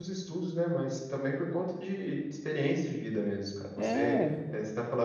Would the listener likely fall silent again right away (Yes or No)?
Yes